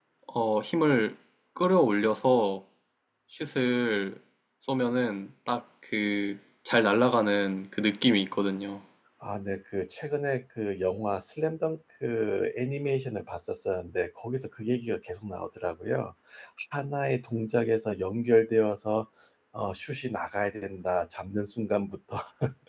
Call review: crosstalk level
none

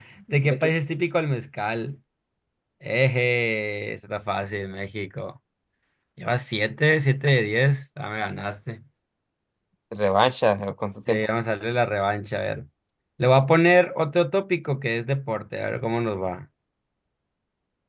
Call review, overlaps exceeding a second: none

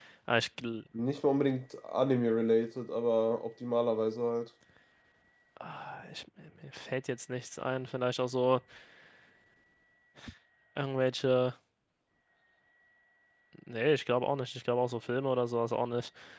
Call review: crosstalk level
none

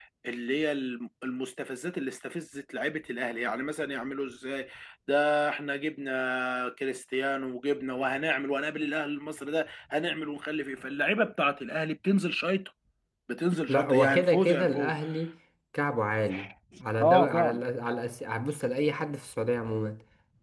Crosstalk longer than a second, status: present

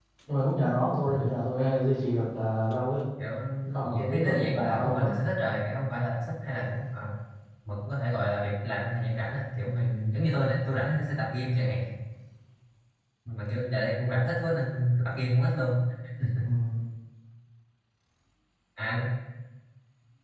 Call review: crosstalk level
present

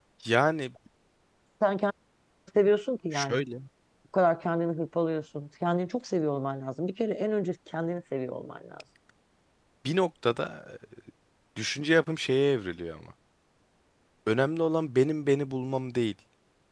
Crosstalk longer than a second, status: none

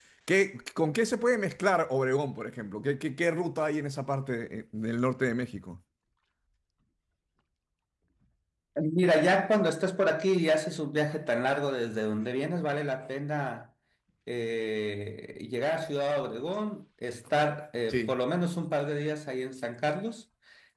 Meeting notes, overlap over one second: none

